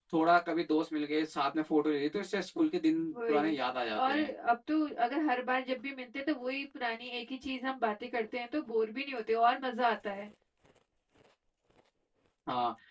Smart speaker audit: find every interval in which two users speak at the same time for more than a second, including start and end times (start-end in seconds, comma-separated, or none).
none